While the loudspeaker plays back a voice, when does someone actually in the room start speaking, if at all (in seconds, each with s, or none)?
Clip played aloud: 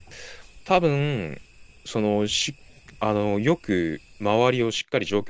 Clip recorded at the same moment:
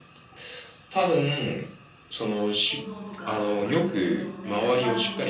2.7 s